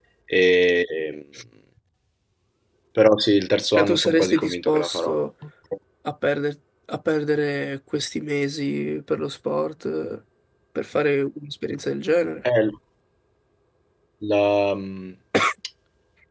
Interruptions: present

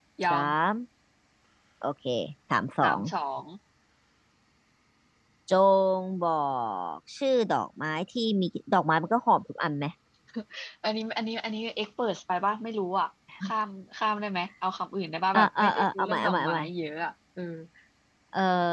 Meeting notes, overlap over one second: present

